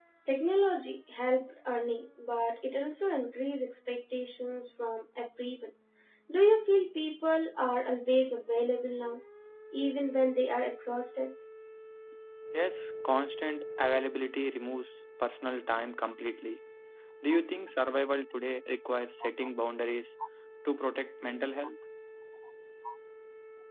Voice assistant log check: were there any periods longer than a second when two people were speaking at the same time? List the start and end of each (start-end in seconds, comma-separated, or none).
none